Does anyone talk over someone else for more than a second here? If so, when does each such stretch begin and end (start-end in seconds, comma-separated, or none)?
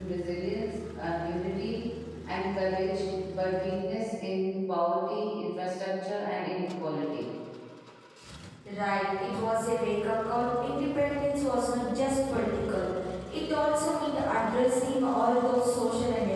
none